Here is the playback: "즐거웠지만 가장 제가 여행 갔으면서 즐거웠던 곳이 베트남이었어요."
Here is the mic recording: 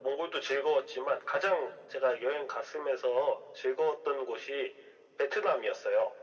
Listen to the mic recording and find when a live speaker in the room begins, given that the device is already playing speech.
none

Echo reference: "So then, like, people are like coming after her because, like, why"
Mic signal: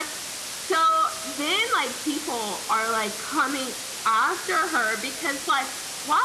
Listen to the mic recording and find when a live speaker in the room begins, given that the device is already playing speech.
none

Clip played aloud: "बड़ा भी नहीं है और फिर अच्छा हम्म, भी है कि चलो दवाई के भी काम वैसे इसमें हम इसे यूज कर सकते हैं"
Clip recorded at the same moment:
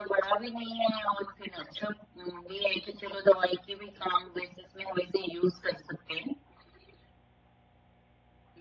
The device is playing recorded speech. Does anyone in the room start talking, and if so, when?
none

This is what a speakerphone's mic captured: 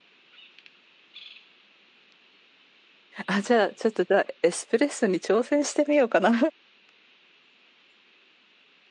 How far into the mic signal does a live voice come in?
3 s

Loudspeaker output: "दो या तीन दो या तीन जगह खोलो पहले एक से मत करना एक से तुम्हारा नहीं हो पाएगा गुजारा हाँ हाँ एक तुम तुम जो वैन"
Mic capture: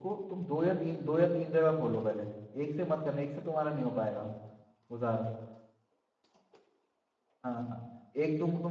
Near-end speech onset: none

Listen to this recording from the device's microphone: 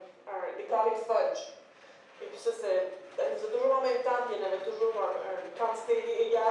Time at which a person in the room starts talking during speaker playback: none

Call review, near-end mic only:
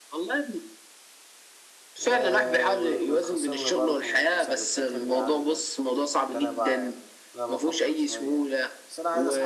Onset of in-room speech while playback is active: 2 s

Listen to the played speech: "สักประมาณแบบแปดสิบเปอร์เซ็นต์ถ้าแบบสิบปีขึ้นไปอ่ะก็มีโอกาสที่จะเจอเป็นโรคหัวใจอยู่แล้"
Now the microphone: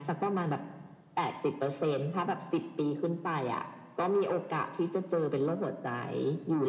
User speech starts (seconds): none

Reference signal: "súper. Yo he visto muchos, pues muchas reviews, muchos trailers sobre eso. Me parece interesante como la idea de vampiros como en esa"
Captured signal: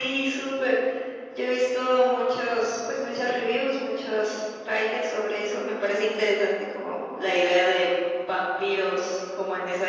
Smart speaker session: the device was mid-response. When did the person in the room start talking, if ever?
none

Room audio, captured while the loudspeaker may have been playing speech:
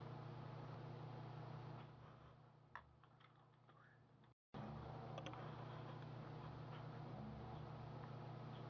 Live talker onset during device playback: none

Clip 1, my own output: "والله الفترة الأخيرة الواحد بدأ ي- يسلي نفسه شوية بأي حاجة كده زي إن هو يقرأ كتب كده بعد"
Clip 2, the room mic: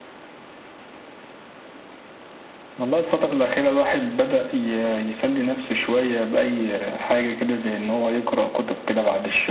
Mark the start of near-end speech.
none

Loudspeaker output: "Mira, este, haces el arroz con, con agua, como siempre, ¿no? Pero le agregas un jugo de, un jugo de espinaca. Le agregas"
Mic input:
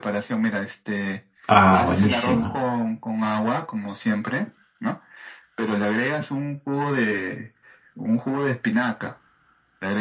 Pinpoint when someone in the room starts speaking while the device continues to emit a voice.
1 s

